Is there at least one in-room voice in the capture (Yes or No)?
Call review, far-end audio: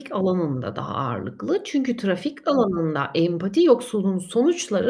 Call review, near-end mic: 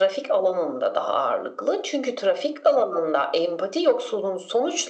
No